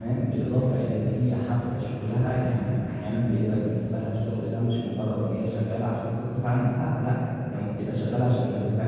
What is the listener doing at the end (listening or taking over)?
listening